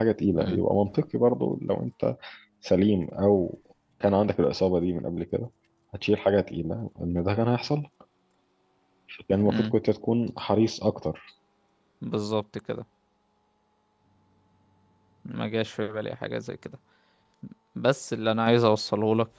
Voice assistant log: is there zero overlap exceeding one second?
Yes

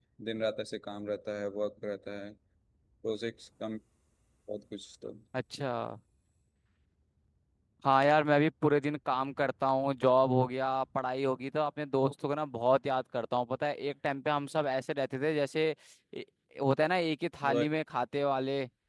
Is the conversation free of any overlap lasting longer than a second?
Yes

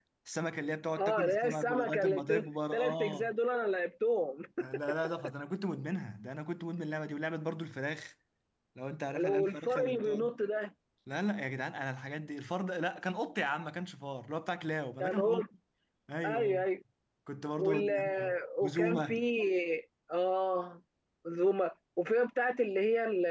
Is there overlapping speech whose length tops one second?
Yes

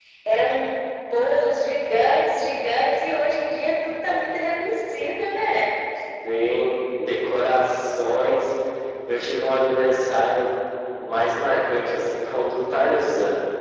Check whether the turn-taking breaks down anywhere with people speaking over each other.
No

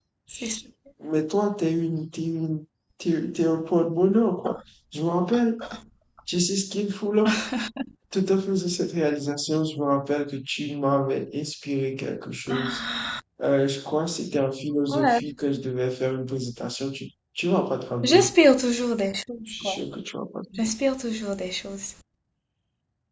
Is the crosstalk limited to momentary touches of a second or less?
Yes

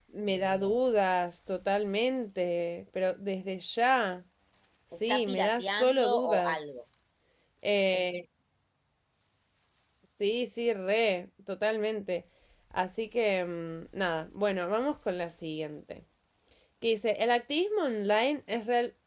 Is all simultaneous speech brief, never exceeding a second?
No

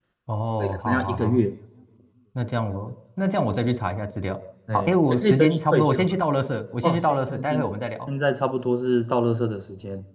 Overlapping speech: Yes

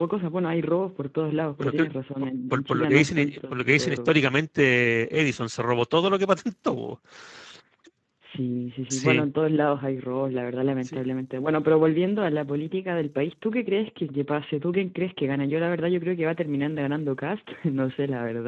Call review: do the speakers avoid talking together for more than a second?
No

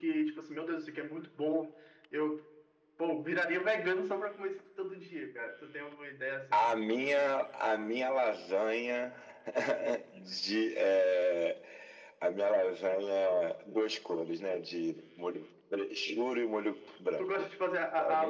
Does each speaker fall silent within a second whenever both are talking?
Yes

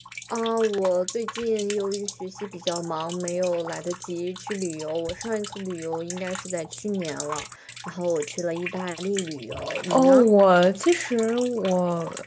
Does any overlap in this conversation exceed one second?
No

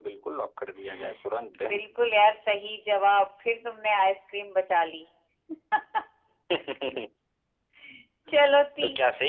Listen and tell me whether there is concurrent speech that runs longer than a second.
No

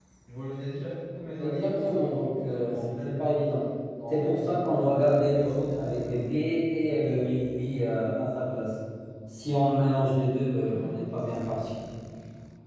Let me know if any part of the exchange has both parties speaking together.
Yes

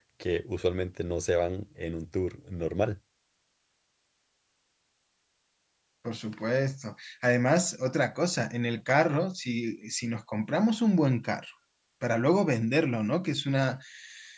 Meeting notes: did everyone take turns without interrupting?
Yes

